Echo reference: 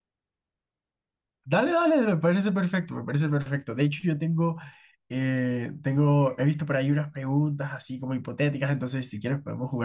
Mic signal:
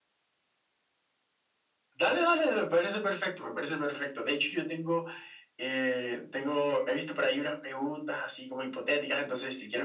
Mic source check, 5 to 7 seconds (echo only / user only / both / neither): echo only